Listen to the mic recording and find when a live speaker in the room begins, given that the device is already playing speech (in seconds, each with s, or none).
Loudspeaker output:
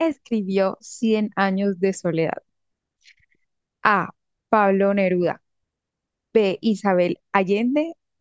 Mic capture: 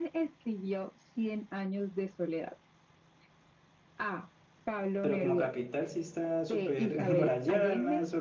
5.0 s